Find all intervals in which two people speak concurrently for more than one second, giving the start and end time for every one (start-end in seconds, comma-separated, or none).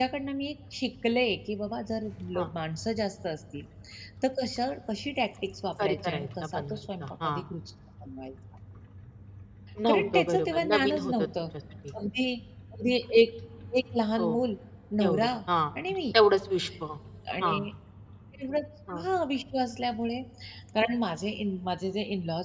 5.8-7.4, 9.9-11.3